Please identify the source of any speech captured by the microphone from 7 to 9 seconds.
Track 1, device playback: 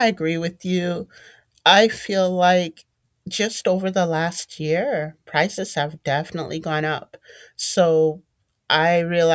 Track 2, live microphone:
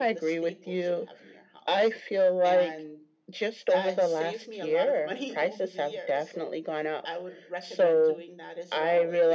both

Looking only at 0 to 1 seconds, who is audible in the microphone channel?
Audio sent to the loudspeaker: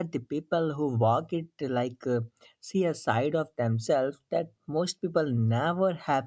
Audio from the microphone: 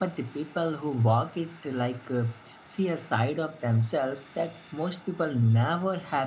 echo only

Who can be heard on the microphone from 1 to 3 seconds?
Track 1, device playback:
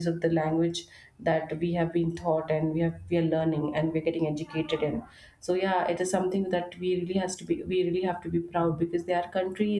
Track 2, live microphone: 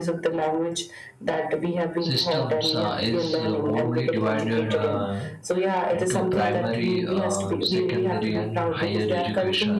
both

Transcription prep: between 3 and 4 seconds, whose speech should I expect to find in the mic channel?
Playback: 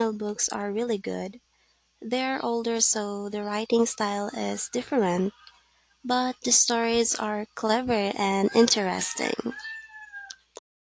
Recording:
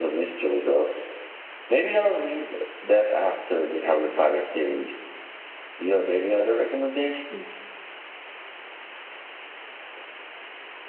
user only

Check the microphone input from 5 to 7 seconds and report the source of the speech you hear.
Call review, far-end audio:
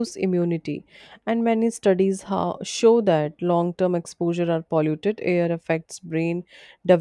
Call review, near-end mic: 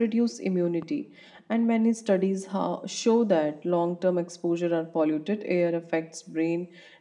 echo only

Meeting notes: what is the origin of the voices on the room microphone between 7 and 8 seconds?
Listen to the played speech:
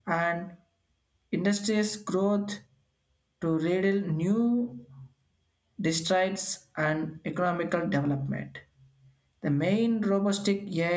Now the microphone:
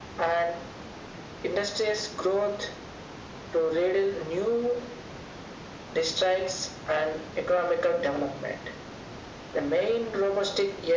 echo only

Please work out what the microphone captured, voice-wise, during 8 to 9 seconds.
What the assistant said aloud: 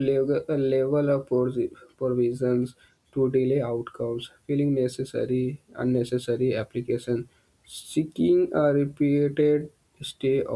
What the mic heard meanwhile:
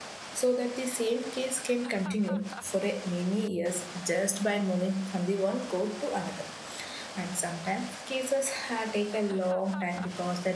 user only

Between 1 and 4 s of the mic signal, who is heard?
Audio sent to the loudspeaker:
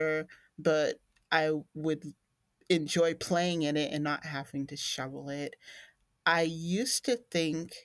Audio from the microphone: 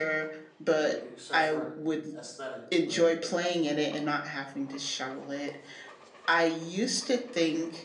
both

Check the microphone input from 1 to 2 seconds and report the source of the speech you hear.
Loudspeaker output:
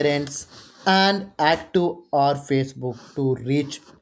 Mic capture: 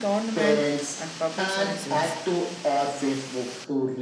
both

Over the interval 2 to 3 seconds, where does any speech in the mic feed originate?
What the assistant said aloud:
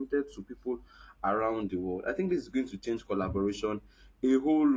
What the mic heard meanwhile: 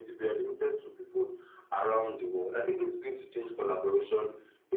echo only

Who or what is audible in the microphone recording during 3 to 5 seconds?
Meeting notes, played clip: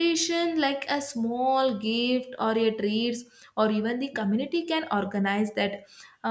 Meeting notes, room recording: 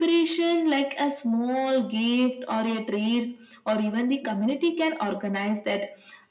echo only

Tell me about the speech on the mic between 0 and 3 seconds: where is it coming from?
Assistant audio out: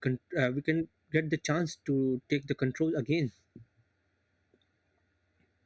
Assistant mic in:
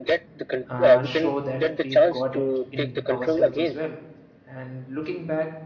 both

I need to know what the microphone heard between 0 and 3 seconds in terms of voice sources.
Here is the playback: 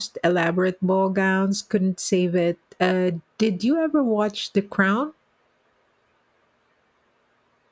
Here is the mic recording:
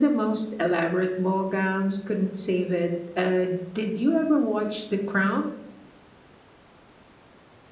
echo only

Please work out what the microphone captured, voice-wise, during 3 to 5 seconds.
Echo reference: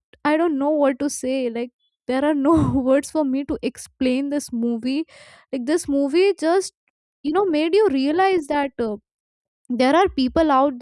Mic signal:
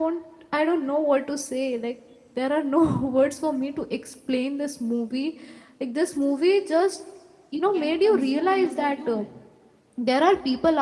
echo only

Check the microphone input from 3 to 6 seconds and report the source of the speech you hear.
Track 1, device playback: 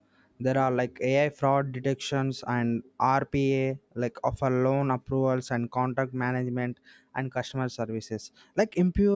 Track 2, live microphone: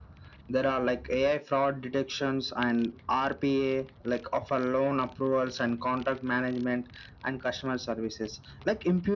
echo only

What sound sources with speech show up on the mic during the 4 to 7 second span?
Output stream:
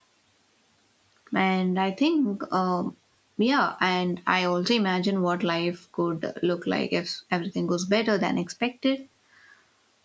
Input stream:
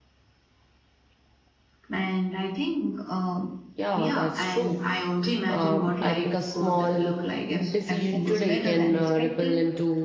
both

